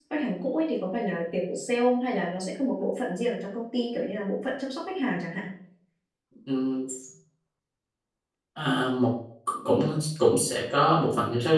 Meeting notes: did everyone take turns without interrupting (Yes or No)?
Yes